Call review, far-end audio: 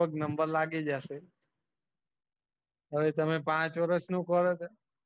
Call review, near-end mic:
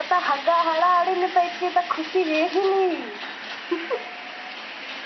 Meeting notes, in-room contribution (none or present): present